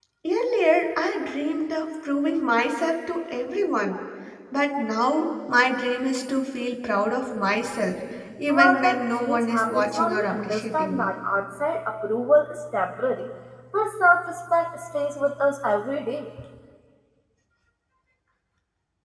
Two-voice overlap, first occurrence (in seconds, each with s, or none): 8.5 s